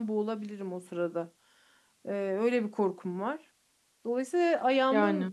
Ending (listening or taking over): listening